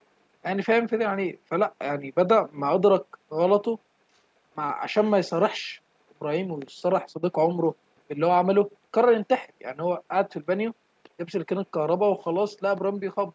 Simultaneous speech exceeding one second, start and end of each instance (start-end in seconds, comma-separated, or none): none